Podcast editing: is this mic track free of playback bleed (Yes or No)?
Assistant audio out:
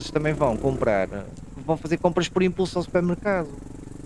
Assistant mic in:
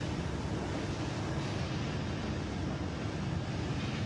Yes